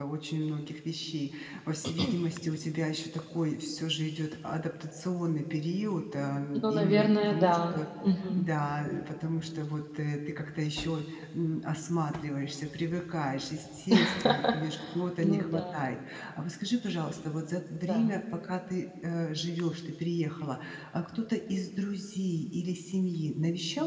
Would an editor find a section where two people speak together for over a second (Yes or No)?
Yes